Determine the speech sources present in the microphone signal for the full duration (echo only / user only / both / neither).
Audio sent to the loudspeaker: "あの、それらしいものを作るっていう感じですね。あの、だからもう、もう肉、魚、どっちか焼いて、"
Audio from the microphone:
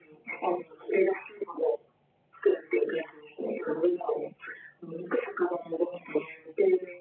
echo only